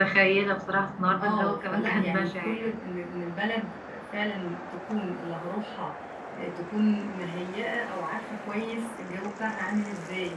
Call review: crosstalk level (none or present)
present